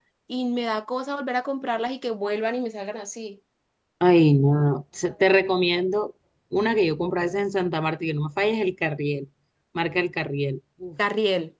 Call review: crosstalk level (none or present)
none